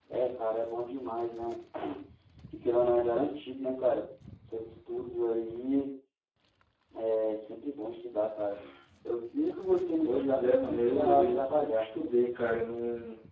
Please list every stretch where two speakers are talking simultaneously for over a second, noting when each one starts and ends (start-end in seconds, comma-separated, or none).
10.1-11.8